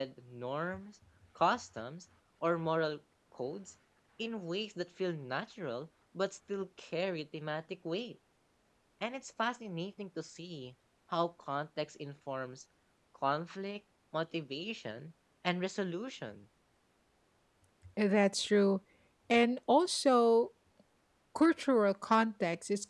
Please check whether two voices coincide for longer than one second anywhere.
No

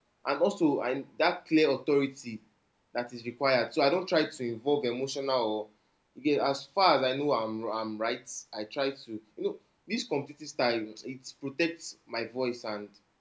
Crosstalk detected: No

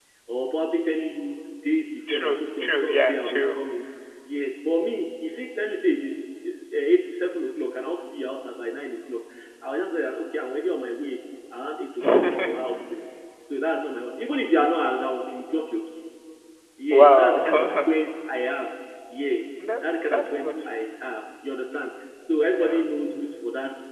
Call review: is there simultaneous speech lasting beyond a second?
Yes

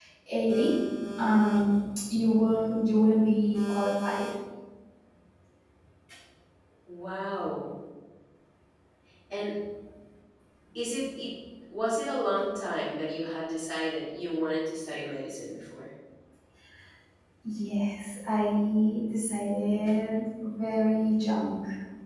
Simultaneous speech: No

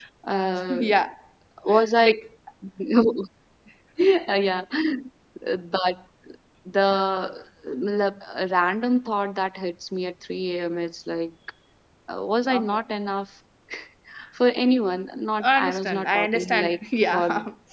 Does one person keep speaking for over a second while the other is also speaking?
Yes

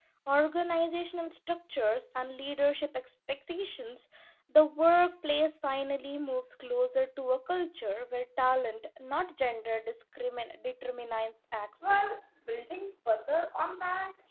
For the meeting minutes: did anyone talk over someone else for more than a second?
No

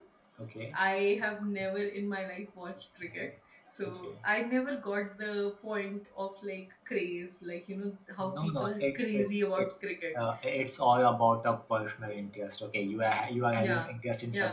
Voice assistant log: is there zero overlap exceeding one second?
No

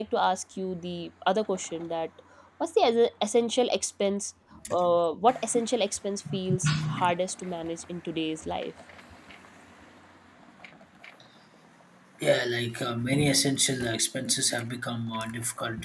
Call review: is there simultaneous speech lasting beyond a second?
No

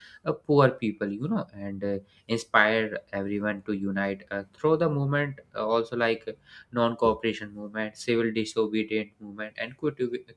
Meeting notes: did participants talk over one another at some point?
No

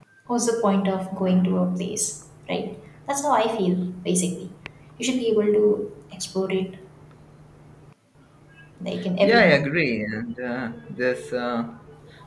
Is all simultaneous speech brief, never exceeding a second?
Yes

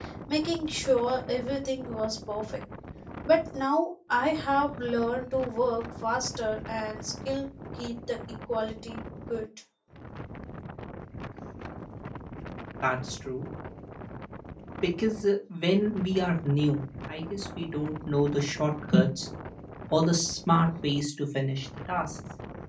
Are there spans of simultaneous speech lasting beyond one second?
No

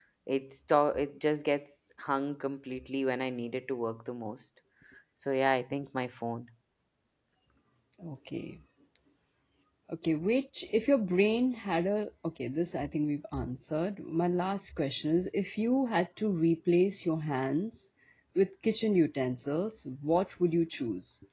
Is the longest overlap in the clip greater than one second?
No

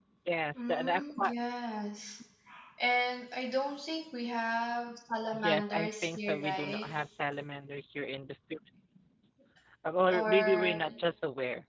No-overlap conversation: No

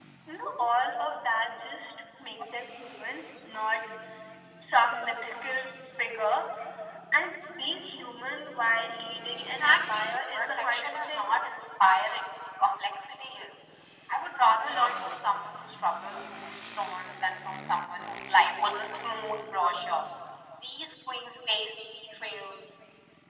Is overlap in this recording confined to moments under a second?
No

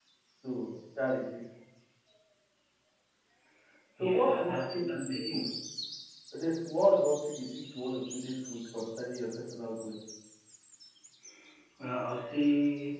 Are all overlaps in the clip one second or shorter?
No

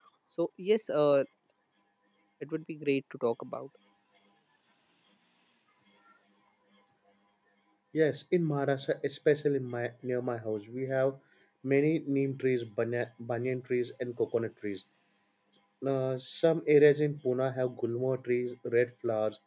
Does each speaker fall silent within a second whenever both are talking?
Yes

